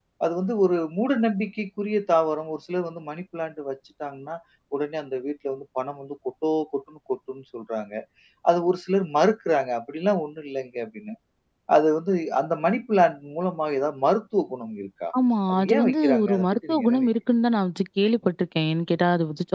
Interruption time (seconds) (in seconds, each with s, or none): 15.5 s